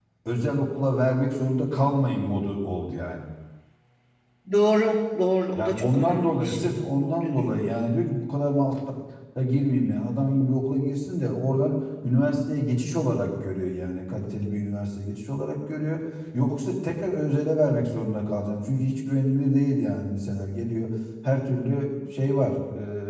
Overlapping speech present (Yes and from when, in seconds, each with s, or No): Yes, from 5.6 s